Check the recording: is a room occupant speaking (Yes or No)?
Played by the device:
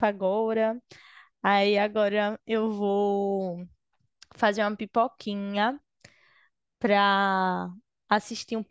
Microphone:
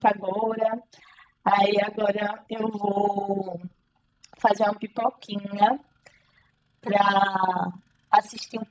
No